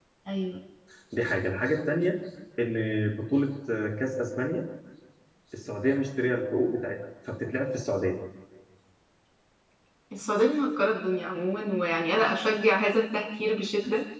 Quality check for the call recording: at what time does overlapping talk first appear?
none

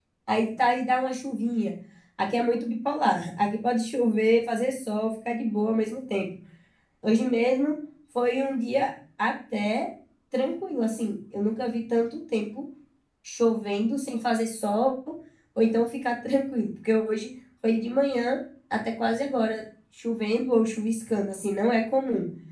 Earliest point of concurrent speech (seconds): none

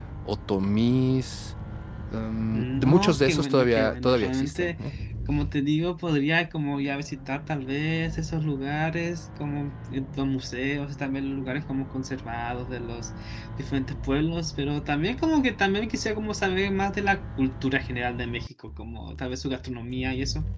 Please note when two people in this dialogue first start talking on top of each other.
2.5 s

